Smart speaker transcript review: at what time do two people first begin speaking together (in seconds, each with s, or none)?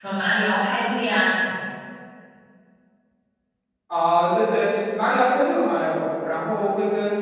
none